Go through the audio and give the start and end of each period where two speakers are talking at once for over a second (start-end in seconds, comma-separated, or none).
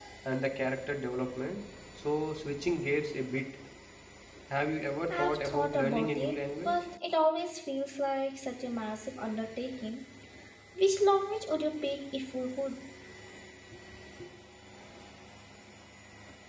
5.1-6.7